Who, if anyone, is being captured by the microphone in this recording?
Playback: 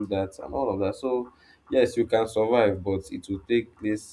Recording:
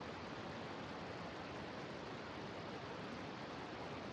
neither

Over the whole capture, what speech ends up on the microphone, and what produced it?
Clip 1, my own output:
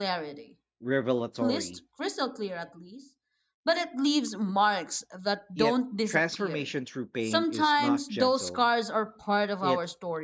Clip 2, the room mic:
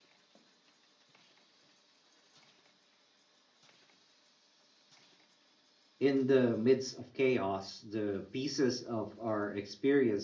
user only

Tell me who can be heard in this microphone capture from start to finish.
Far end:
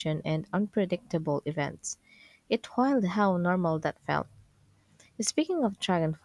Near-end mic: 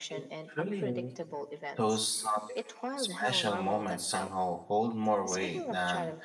both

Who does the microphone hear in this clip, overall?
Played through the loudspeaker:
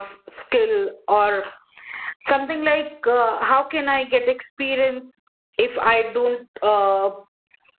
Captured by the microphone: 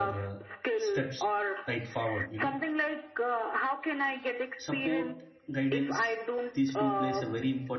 both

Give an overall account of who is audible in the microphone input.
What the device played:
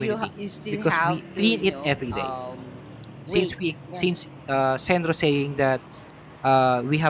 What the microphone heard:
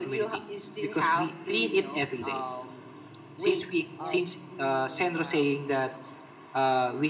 both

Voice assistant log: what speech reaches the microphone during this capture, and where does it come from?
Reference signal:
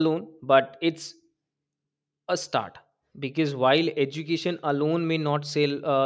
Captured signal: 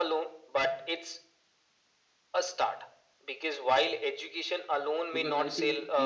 both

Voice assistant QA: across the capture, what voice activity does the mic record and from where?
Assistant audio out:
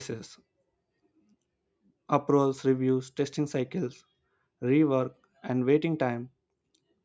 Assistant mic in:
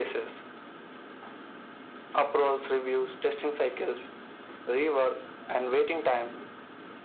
echo only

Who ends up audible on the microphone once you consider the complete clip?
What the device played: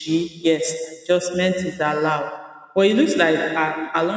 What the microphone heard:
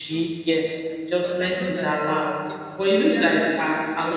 both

